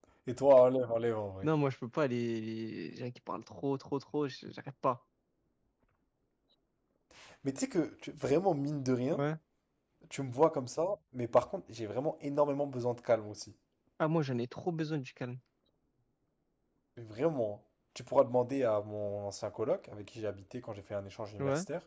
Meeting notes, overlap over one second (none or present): none